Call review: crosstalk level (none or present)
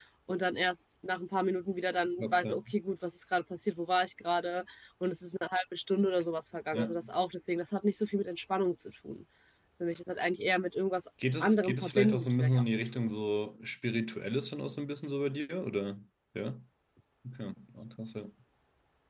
present